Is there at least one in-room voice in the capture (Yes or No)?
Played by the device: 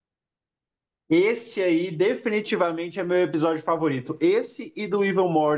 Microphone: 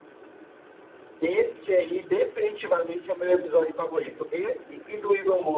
No